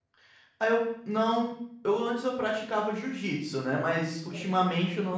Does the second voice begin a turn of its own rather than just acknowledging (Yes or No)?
No